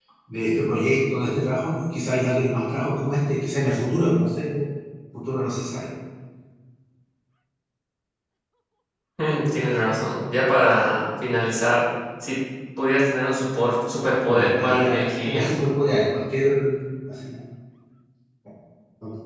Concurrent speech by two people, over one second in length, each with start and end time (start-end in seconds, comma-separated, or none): 14.3-15.5